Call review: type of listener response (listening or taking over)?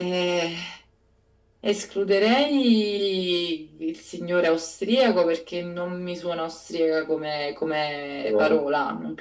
listening